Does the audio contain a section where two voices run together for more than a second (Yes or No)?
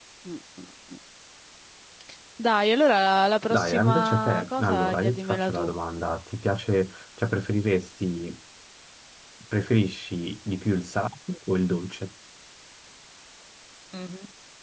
Yes